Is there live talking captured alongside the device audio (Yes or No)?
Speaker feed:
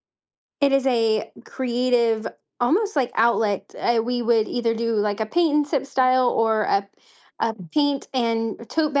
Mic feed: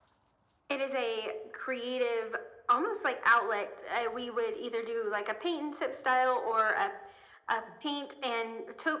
No